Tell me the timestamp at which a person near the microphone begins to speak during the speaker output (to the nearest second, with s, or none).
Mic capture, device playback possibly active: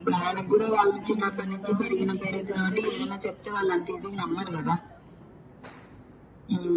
1 s